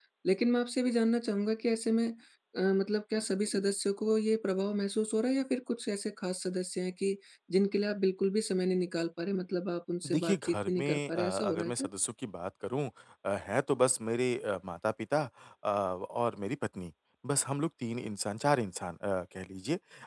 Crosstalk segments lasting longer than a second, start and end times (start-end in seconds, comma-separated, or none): 10.1-11.9